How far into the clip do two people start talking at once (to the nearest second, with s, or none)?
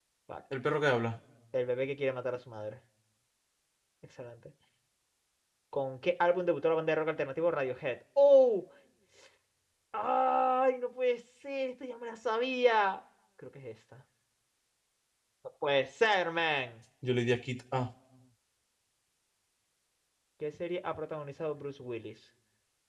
none